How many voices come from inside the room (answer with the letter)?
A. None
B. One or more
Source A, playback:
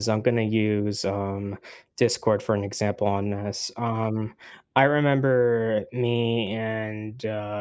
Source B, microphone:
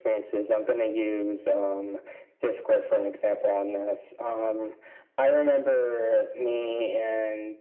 A